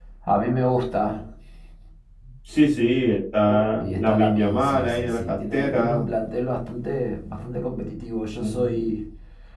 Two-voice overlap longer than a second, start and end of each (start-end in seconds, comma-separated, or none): 3.8-6.0